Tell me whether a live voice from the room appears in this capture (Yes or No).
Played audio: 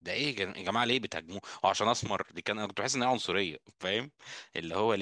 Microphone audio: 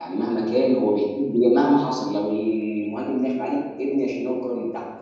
Yes